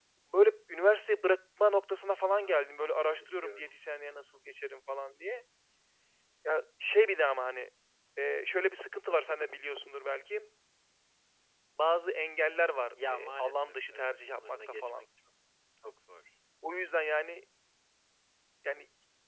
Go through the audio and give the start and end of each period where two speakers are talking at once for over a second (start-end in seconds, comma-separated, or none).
2.4-3.7, 13.1-15.0